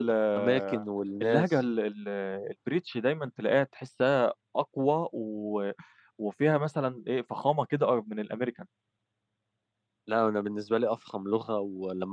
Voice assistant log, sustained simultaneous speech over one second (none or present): none